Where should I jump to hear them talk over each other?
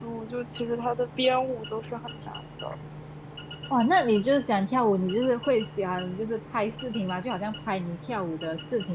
none

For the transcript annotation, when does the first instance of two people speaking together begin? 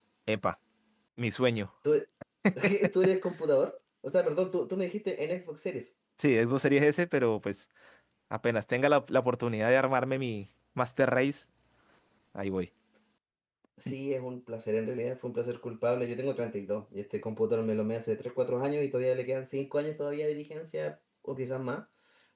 none

